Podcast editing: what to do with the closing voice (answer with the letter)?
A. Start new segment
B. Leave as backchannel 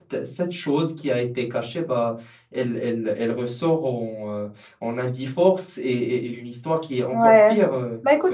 A